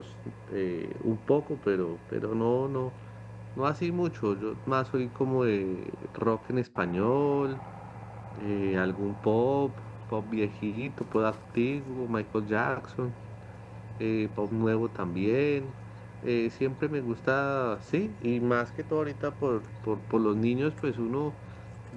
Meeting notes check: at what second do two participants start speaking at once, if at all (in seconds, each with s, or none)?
none